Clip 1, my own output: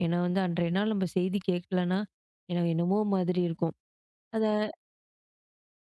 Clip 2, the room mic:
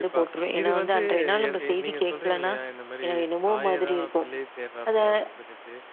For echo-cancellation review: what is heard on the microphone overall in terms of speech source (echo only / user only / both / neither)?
both